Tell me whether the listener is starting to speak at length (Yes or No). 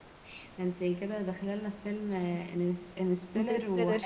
No